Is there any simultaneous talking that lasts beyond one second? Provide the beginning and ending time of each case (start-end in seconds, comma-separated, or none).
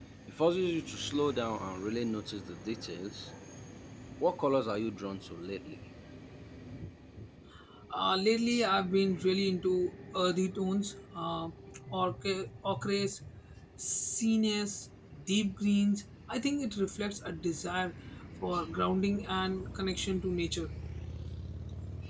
none